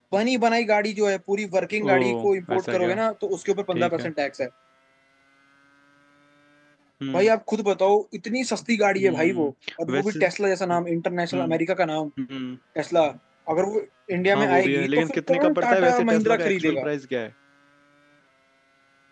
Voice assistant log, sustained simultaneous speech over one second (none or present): present